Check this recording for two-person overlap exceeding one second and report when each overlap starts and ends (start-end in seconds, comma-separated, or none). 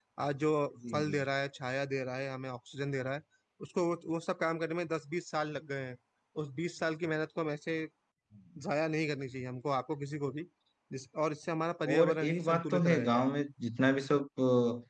11.9-13.3